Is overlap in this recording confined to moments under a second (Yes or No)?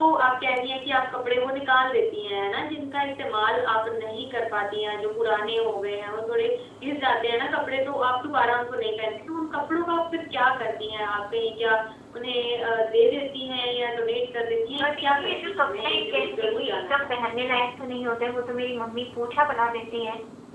No